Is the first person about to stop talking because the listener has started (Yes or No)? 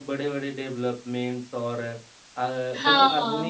No